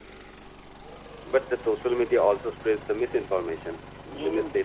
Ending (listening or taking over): taking over